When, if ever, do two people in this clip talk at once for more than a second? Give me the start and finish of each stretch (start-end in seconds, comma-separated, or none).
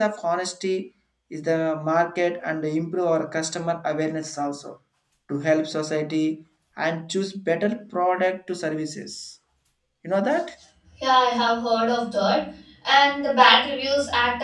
none